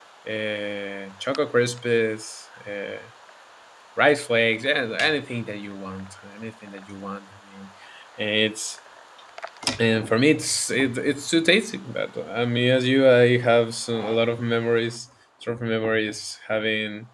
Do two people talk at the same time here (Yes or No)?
No